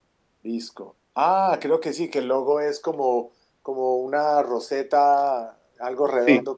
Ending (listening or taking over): listening